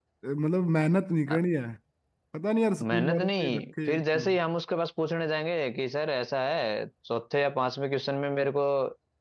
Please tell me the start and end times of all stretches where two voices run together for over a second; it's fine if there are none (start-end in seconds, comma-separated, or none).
2.8-4.3